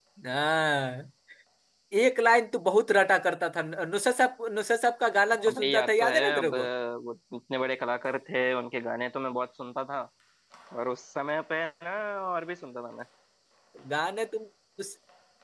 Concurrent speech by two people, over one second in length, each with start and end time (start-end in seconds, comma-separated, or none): 5.4-6.7